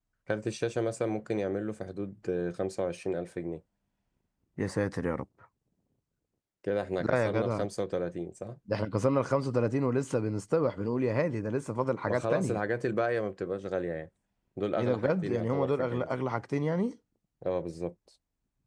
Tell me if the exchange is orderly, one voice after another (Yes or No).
No